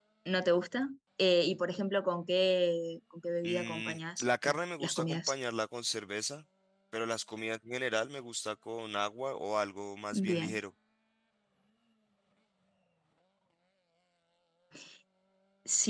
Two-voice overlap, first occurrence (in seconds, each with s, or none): 3.4 s